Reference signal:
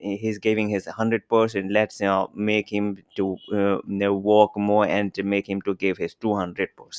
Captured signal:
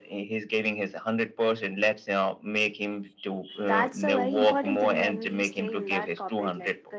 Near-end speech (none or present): present